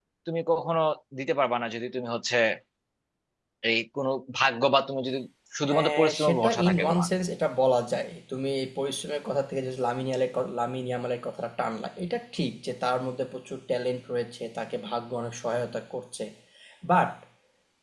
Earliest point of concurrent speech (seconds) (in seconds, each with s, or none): 5.7 s